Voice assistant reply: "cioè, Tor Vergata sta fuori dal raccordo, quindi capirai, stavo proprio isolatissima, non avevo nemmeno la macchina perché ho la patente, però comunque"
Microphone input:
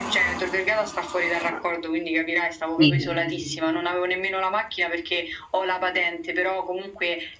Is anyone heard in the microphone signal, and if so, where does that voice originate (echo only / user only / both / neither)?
both